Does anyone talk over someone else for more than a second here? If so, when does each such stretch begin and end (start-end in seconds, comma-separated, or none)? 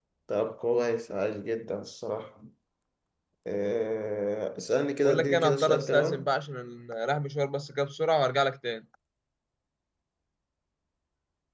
5.0-6.2